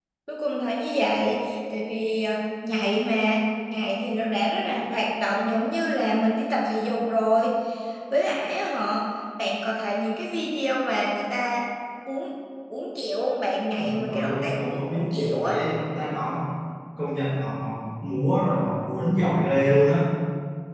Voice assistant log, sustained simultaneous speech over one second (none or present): present